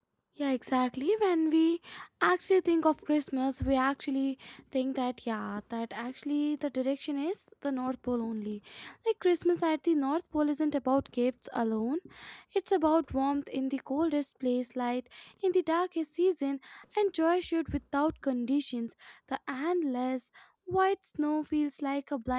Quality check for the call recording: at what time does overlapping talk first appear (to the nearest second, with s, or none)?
none